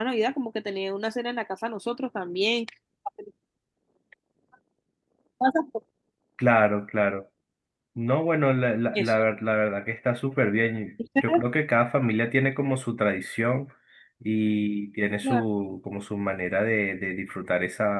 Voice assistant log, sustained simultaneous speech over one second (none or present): none